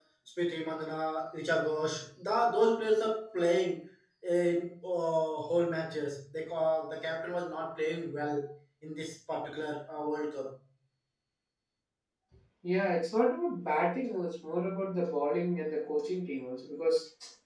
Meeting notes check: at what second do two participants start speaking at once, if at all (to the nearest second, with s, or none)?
none